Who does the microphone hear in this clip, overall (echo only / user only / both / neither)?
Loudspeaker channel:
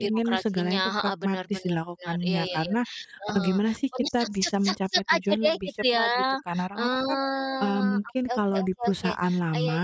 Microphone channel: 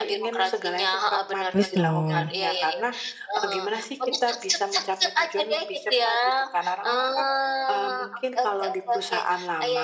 both